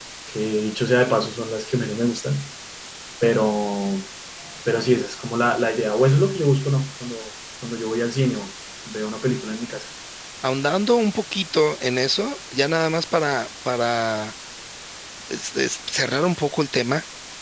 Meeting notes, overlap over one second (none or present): none